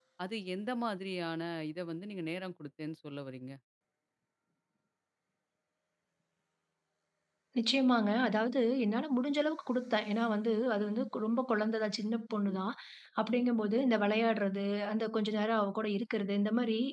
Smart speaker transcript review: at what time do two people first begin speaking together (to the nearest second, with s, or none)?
none